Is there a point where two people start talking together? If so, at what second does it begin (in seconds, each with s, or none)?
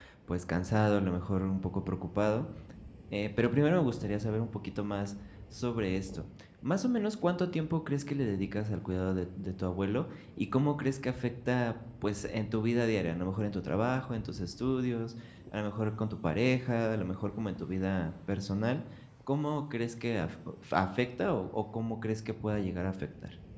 none